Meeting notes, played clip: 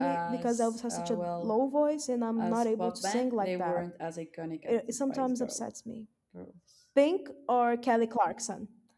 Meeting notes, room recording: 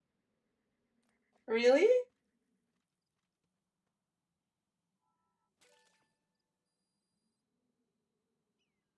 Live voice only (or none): Really?